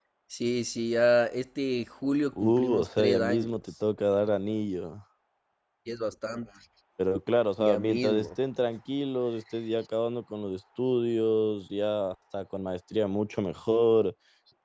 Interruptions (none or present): present